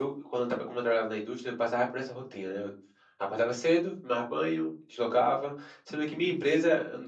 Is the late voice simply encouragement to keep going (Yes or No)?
Yes